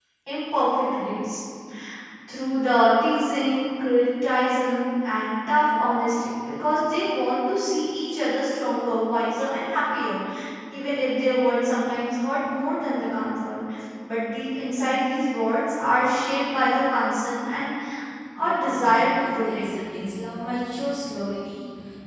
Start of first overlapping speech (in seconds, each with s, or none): 18.4 s